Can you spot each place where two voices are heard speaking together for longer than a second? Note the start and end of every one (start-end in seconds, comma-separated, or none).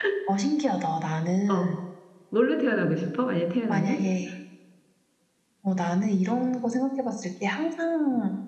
none